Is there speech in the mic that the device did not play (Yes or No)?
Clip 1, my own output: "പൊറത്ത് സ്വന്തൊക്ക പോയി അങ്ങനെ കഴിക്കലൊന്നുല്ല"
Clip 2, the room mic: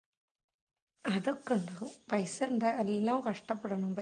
Yes